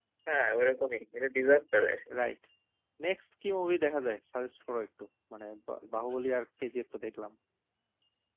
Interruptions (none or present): none